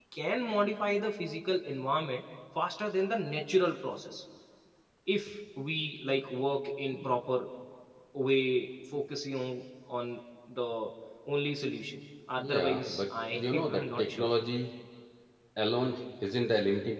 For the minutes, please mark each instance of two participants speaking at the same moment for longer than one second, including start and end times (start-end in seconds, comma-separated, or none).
12.4-14.3